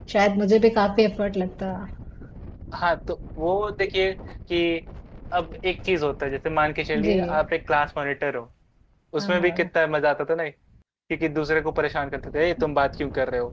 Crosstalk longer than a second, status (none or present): none